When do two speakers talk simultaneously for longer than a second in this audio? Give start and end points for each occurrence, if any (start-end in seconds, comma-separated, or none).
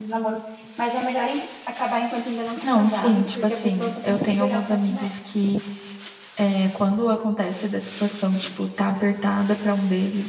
2.6-5.3